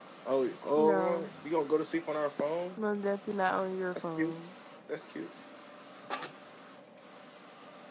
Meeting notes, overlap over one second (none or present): none